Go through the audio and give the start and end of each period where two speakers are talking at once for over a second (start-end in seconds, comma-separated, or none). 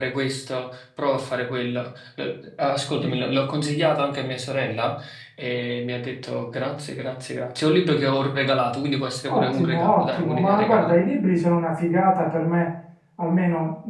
9.3-11.0